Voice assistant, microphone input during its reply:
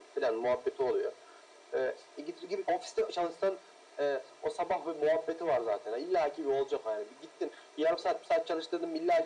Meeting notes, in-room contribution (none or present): none